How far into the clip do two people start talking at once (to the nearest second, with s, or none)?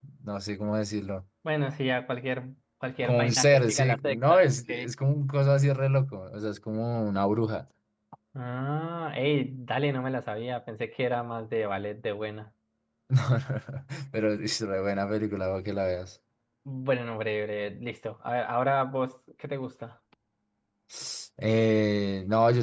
3 s